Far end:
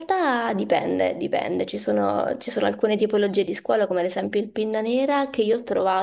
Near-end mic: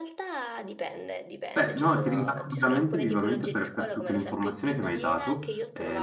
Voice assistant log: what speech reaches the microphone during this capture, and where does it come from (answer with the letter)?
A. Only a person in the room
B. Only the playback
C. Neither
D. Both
D